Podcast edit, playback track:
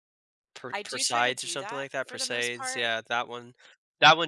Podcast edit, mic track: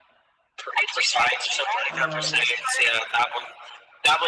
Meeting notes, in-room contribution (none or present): present